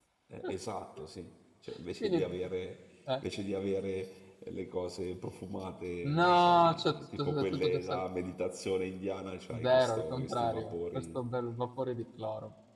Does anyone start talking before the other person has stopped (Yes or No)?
Yes